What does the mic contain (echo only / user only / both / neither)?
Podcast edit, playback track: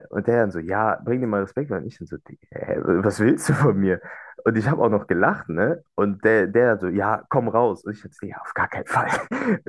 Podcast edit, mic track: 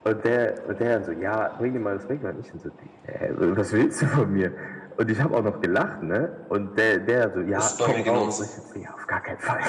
both